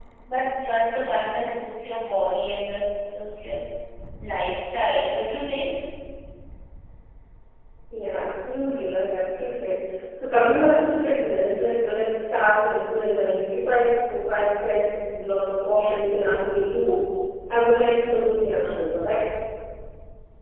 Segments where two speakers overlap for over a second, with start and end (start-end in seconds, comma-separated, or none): none